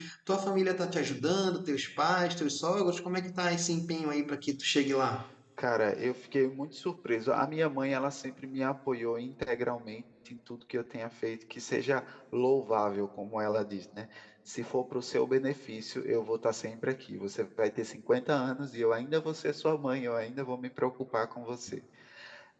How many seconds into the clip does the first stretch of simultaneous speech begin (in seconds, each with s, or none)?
none